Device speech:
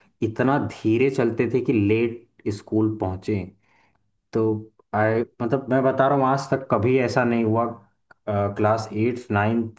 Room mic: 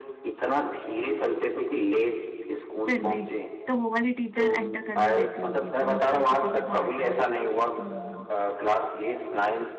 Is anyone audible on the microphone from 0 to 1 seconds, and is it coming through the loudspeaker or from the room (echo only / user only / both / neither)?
echo only